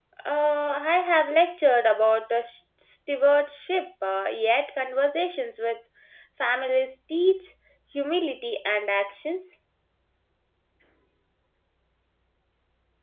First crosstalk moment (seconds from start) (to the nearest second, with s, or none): none